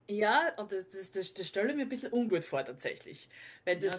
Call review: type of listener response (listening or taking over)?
taking over